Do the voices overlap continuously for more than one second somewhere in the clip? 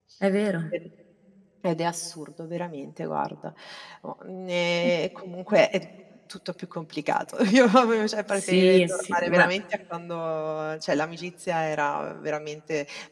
Yes, from 8.3 s

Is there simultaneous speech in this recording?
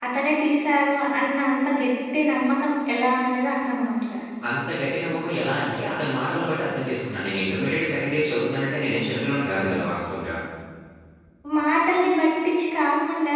No

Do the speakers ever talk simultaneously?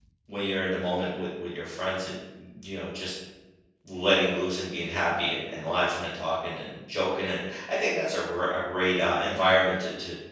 No

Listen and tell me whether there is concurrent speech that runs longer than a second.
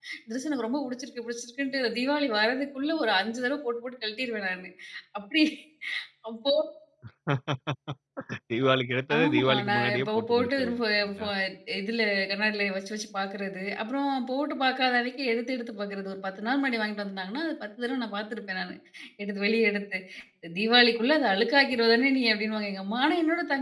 Yes, from 9.2 s

